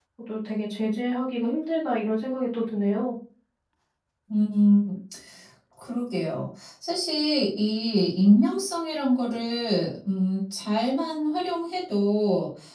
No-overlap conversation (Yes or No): Yes